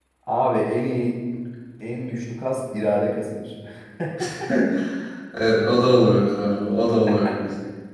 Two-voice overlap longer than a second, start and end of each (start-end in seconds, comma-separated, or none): none